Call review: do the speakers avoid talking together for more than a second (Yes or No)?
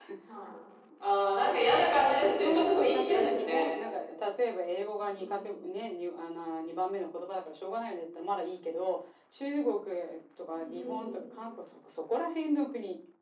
No